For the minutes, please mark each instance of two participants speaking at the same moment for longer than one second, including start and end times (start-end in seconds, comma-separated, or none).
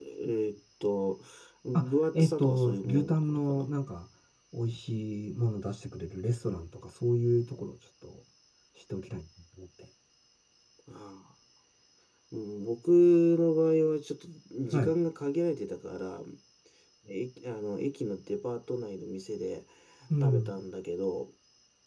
1.7-3.7